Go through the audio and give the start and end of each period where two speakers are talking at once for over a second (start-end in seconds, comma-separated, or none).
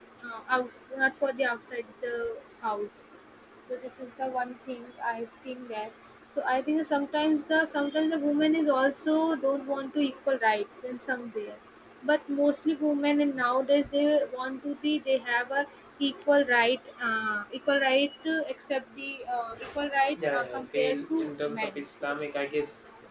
20.2-21.7